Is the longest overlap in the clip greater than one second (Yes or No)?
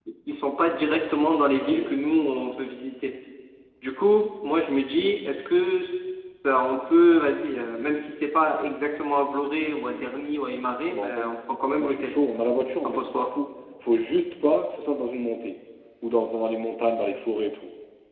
No